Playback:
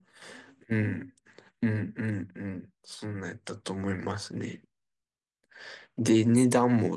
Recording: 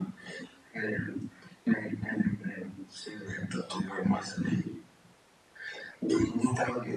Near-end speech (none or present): none